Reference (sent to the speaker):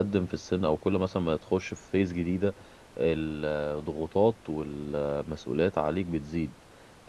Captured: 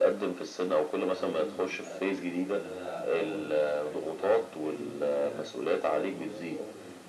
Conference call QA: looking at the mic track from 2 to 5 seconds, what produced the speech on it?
both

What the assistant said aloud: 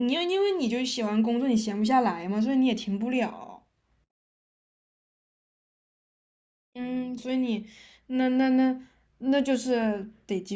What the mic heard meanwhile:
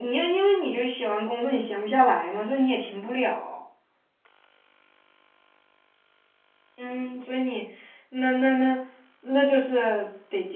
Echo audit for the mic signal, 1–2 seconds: echo only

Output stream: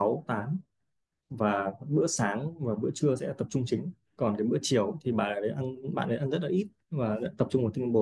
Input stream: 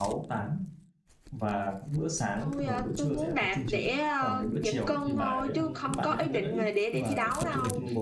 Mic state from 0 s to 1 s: echo only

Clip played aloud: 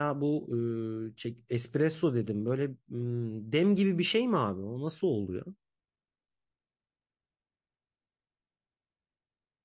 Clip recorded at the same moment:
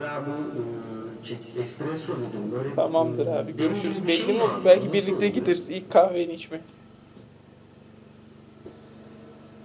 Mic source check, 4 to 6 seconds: both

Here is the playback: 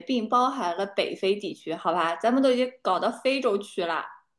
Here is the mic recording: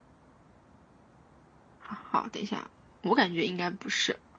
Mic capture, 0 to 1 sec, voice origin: neither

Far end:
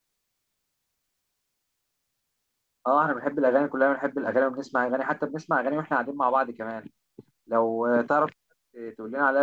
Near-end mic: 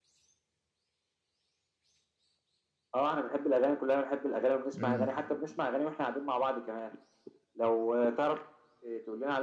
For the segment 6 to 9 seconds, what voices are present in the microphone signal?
echo only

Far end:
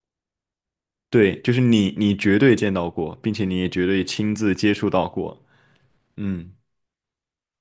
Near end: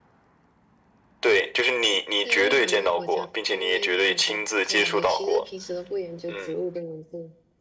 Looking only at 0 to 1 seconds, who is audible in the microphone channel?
neither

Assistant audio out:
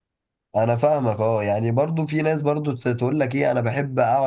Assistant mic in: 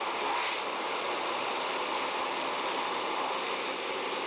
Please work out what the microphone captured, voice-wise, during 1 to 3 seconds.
neither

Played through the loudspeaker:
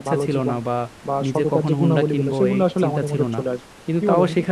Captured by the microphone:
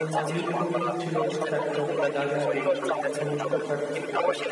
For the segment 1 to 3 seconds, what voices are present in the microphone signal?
both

